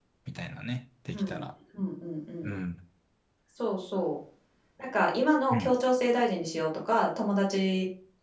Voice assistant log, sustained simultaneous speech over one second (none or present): none